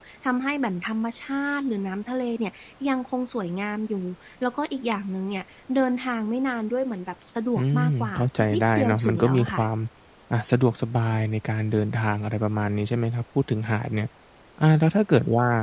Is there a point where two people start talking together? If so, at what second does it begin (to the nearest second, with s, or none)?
8 s